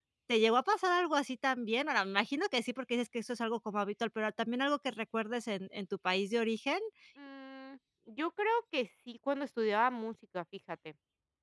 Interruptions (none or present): none